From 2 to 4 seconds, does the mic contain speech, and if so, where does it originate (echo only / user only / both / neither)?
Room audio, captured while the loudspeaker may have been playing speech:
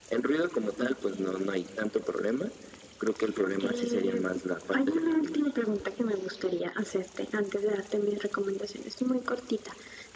echo only